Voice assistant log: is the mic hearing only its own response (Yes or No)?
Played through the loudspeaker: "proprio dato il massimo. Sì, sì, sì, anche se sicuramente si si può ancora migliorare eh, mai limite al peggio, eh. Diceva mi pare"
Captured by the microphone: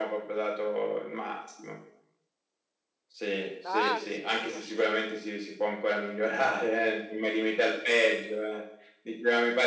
No